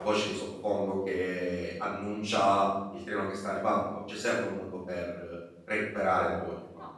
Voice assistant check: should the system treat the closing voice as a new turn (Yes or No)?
Yes